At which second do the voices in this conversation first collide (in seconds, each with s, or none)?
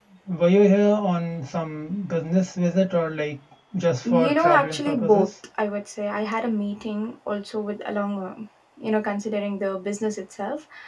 4.0 s